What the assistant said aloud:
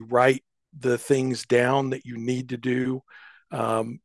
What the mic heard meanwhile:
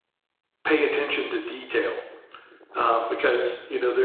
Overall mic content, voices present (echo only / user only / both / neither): user only